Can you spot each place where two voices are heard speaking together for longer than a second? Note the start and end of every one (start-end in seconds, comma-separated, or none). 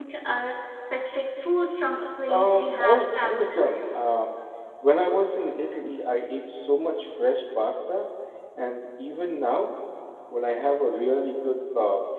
2.3-3.7